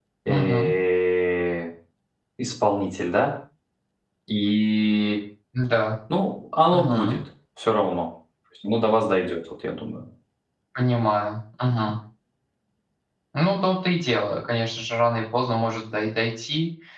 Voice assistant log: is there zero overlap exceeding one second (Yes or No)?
Yes